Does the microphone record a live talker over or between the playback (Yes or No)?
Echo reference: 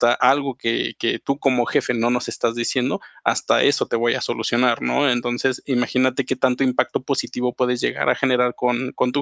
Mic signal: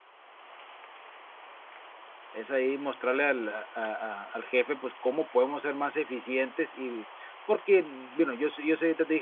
Yes